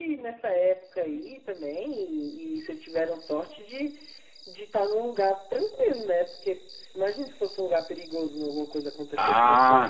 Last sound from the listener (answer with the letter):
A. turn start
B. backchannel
A